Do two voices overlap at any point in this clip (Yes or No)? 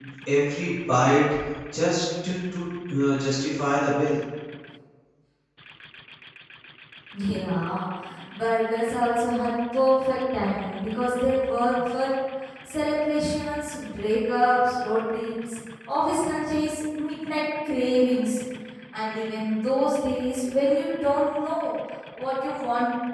No